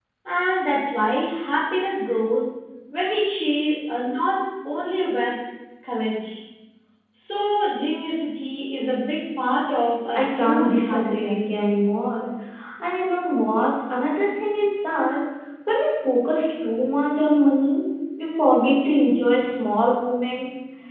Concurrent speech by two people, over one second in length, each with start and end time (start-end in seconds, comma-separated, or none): 10.2-11.6